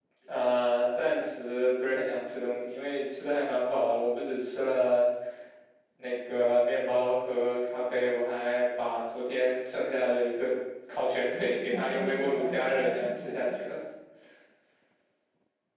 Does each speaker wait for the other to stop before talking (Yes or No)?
No